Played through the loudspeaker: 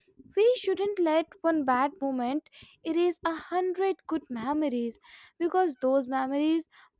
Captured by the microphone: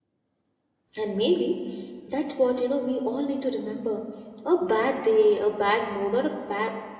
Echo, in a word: none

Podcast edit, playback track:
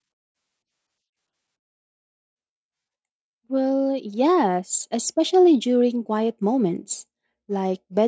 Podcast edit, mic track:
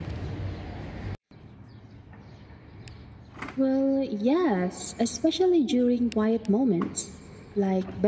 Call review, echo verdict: present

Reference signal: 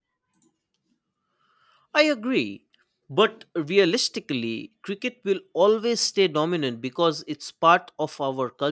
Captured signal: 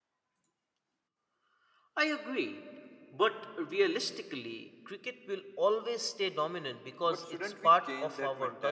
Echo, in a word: present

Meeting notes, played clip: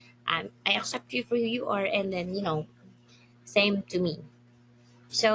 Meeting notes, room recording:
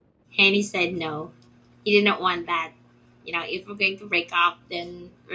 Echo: none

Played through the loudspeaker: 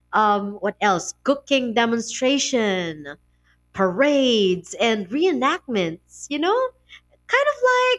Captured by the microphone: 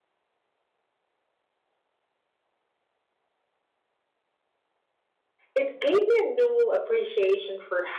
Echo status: none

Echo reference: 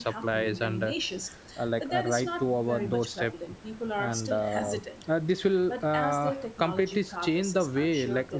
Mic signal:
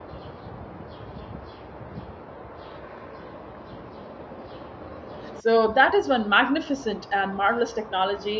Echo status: none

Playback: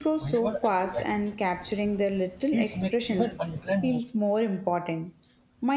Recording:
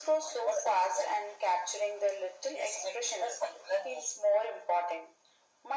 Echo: present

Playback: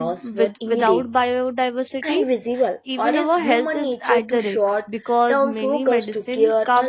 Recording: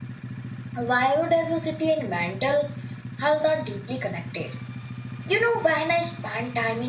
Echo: none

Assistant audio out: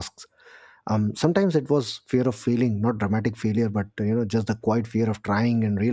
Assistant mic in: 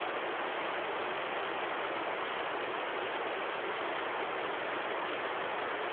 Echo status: none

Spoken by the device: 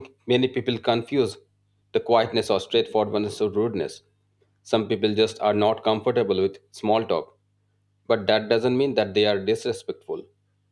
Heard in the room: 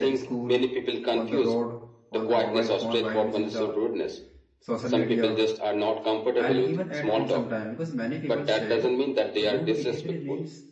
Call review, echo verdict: present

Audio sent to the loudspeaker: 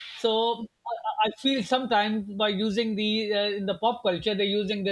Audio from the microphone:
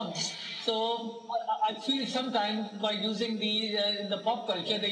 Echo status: present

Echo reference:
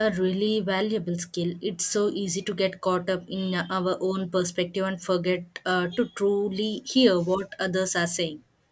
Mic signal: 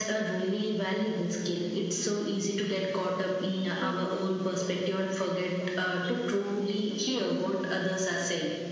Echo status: present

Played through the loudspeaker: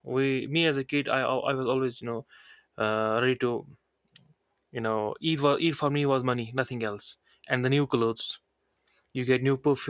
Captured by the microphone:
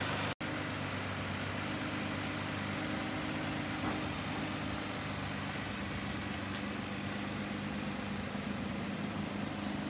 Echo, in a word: none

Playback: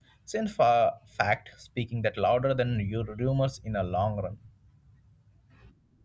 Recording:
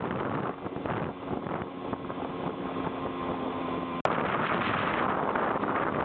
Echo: none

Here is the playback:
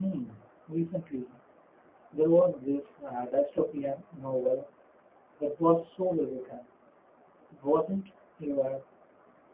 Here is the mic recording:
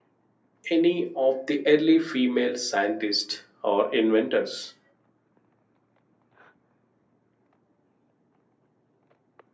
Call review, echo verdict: none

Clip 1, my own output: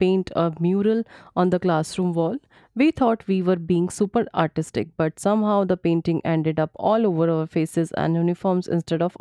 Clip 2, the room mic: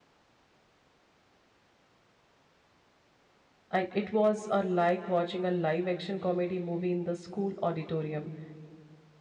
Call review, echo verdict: none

